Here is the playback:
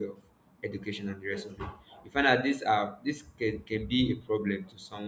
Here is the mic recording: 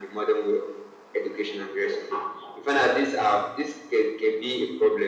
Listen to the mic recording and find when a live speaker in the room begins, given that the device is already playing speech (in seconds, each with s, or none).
none